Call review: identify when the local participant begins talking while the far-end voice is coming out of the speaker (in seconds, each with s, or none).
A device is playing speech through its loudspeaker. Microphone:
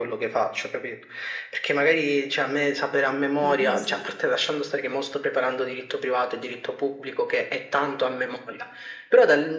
3.4 s